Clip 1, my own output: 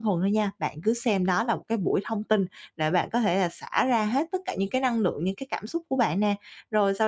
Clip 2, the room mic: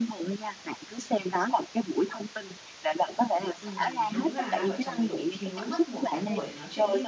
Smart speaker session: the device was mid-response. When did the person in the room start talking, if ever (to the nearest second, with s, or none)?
4 s